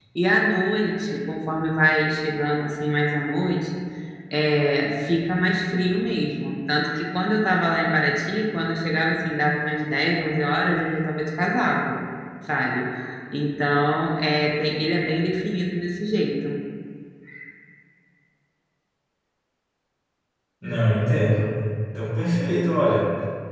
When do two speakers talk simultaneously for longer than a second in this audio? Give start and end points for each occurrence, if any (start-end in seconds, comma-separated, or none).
none